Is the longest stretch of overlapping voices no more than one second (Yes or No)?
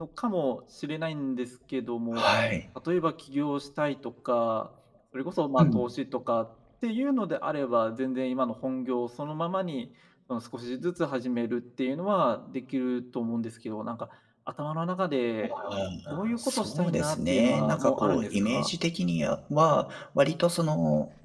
No